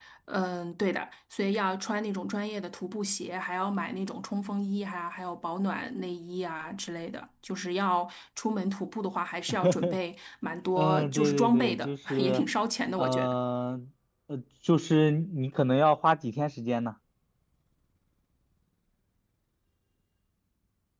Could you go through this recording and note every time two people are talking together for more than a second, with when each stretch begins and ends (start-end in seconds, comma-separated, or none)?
10.8-12.4